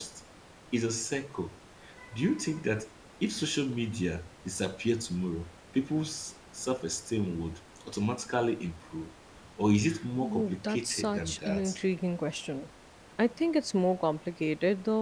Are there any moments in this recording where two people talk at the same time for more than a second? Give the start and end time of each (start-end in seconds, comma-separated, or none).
10.2-11.7